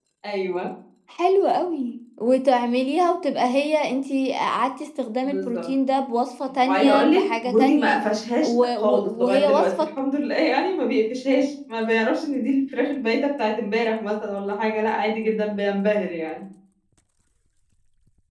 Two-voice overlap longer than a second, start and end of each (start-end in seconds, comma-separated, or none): 6.6-8.0, 8.4-9.9